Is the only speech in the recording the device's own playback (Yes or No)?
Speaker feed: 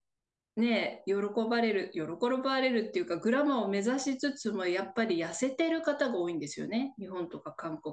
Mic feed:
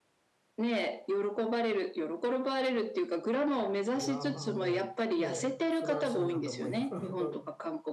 No